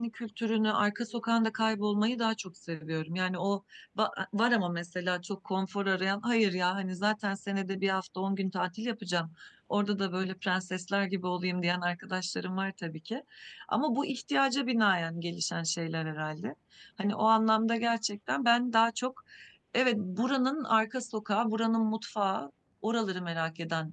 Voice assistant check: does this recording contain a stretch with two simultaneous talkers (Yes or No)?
No